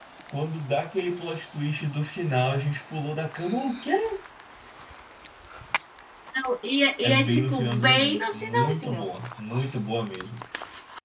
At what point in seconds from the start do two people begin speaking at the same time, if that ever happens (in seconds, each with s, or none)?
7.0 s